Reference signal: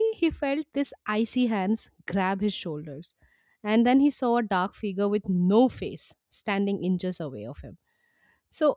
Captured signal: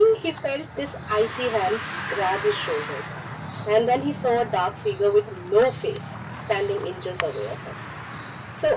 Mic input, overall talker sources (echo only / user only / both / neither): echo only